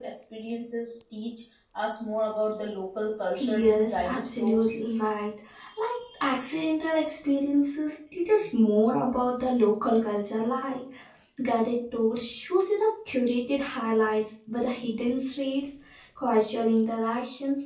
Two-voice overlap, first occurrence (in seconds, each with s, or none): 3.4 s